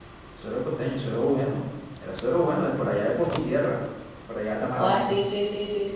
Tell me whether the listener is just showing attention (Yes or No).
No